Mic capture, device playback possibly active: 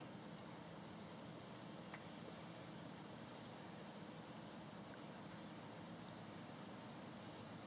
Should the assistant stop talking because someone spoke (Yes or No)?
No